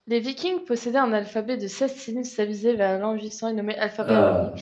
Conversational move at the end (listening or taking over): listening